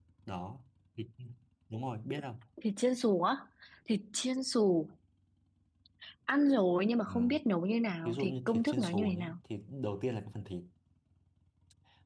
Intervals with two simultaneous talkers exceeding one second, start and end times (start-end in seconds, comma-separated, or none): 8.0-9.4